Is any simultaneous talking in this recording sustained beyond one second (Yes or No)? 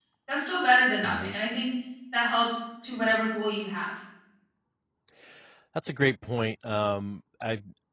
No